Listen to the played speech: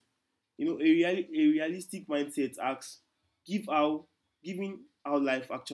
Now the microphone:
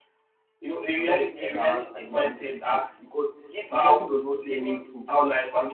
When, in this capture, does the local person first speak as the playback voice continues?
1 s

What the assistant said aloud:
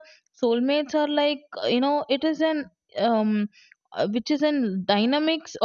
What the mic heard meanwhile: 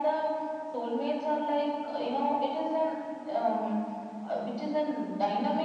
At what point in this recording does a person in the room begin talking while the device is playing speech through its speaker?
none

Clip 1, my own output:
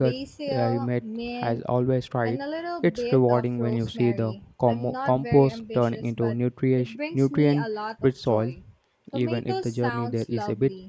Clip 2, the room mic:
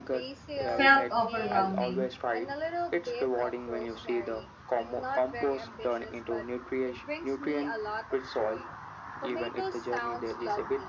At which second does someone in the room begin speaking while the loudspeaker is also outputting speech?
1 s

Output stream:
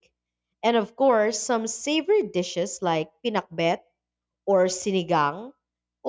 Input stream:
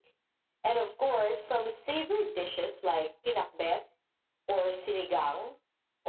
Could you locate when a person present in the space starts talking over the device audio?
none

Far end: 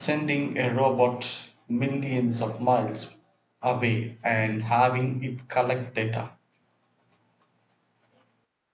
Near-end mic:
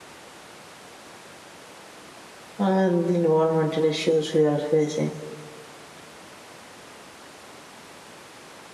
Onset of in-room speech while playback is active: 3 s

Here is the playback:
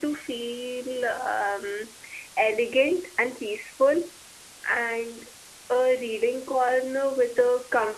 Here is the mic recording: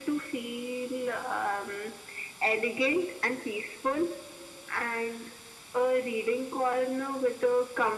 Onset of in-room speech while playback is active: none

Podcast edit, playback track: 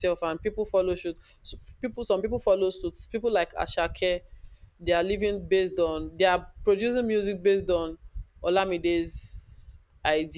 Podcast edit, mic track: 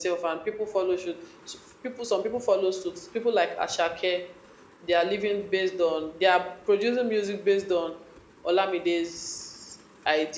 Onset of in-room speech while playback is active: none

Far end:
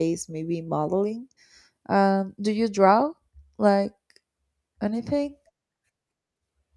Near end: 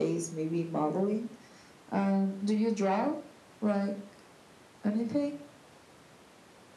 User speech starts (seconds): none

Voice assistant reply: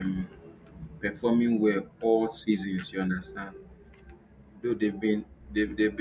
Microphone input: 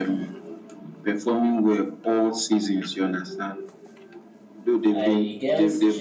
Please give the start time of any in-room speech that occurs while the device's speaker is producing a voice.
5 s

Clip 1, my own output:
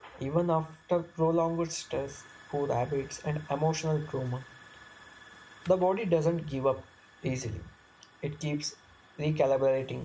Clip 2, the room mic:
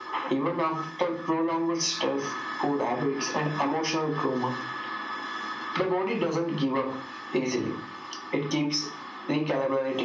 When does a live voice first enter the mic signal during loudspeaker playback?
none

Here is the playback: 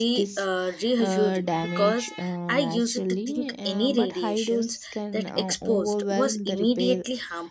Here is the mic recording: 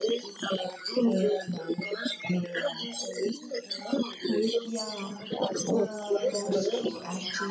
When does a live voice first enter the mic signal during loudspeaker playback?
5 s

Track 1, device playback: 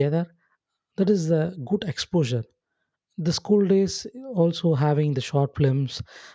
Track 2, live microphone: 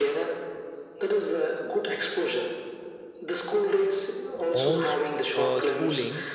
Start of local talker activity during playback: 5 s

